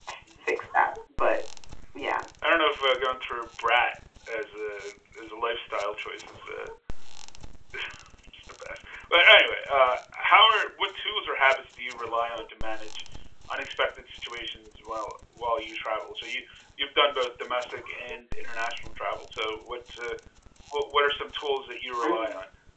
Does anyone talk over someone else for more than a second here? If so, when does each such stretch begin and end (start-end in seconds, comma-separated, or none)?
none